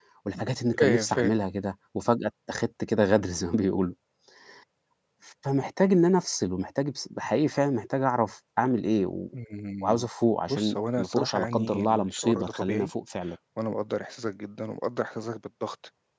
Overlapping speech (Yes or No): Yes